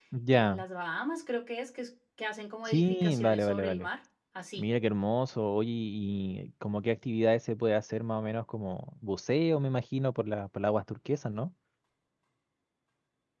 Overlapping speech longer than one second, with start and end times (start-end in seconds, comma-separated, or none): 2.7-3.9